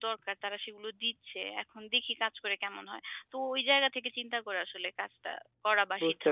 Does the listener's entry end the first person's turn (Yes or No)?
Yes